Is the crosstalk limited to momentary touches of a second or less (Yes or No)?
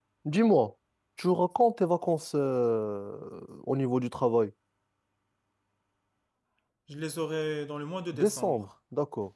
Yes